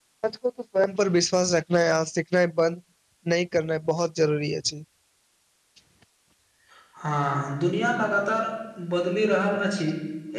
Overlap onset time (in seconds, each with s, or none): none